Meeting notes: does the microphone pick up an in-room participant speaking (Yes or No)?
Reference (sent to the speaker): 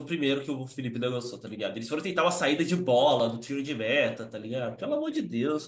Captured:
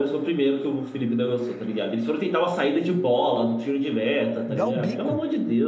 Yes